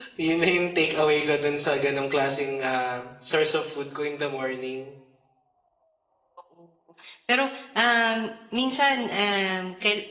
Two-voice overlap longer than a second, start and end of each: none

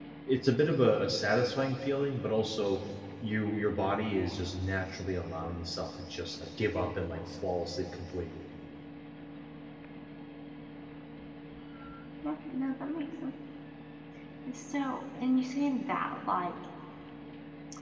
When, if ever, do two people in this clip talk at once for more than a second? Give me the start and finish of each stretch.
none

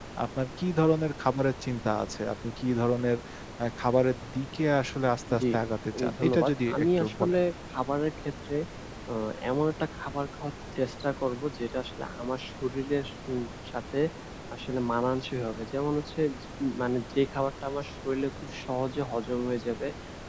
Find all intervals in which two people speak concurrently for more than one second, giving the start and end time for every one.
6.0-7.4

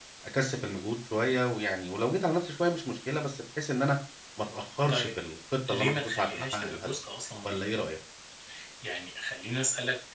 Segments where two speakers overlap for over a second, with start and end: 5.7-7.0

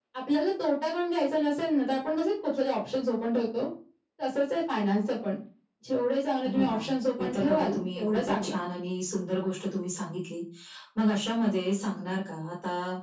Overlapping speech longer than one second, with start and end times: 7.2-8.5

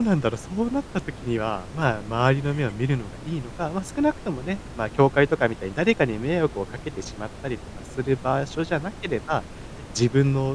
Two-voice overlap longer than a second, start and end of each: none

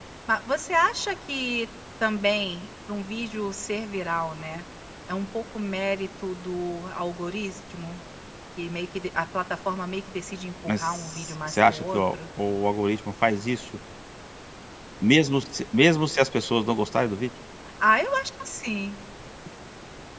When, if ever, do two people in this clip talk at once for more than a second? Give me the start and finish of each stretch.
10.7-12.1

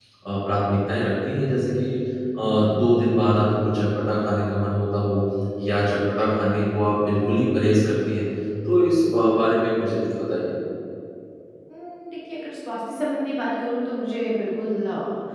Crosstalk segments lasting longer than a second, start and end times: none

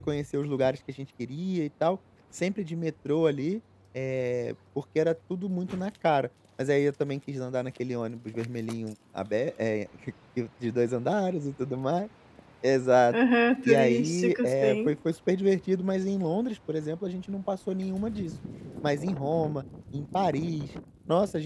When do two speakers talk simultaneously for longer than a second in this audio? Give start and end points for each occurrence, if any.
13.7-15.0

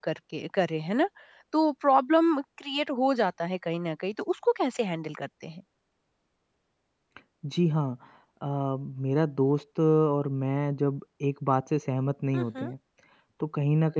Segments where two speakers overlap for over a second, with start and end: none

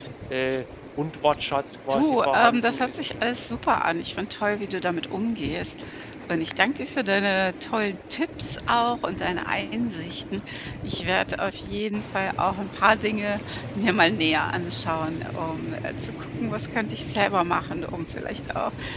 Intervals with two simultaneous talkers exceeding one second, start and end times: 1.9-3.3

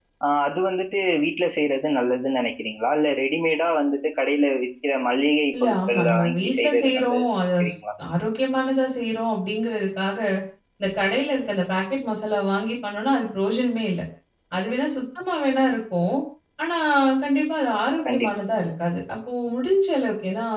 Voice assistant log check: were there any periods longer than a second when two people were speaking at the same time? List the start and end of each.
5.6-7.7

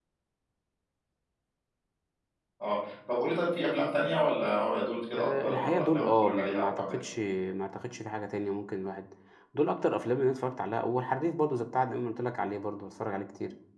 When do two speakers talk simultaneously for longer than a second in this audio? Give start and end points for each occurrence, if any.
5.2-7.1

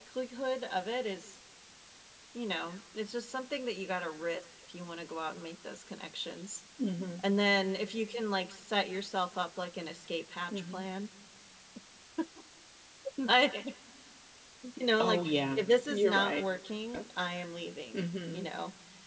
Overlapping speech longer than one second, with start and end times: 15.0-16.4

